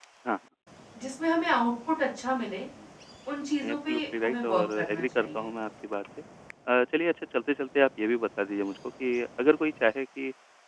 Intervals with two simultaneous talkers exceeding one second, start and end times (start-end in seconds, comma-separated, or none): 3.7-5.5